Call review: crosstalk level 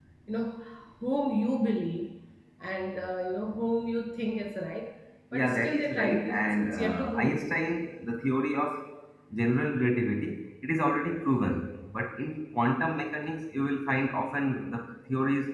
present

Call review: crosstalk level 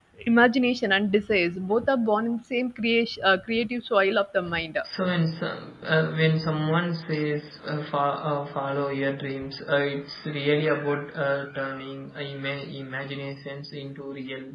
none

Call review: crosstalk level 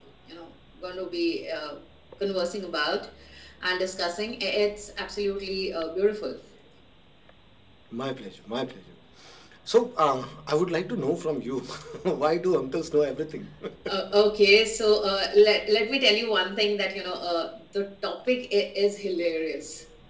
none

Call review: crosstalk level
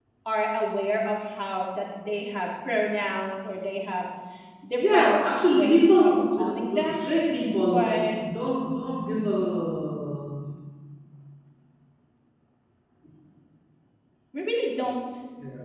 present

